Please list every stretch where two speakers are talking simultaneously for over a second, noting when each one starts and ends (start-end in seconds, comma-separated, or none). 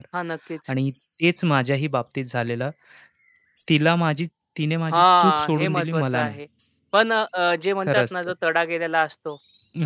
4.9-6.4